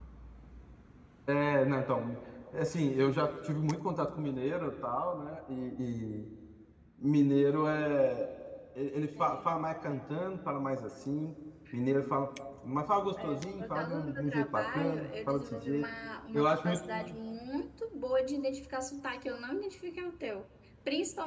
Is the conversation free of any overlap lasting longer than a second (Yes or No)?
No